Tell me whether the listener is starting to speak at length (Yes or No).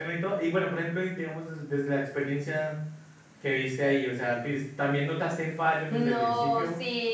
Yes